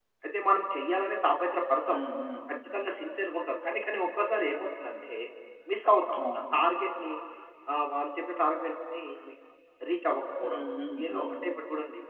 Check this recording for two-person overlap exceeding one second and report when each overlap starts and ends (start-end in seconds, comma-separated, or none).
none